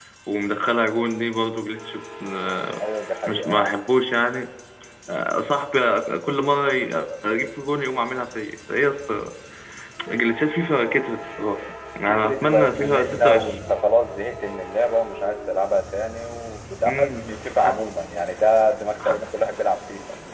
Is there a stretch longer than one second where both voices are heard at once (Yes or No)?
Yes